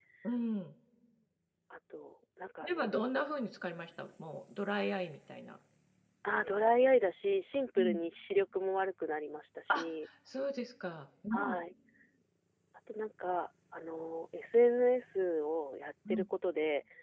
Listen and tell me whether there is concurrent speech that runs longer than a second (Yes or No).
No